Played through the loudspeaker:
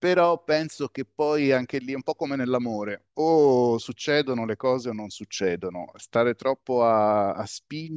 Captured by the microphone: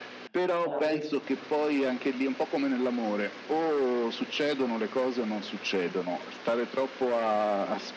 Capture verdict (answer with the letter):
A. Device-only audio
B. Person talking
B